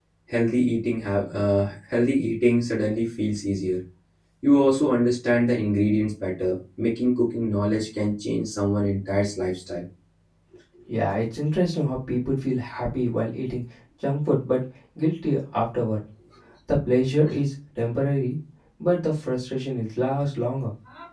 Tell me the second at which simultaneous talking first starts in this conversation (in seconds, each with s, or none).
none